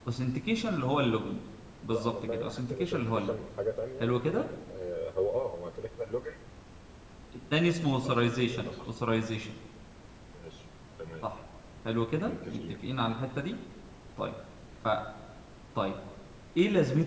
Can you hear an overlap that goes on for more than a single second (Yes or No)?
Yes